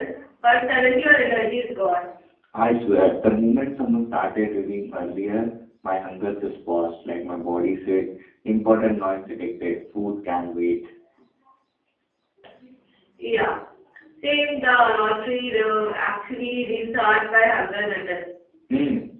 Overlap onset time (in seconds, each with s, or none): none